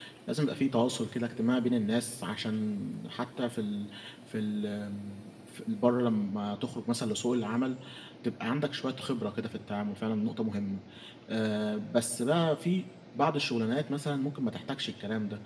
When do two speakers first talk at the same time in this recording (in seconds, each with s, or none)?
none